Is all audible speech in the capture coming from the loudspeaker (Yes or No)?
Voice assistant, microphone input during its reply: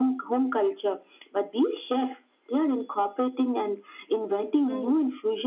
No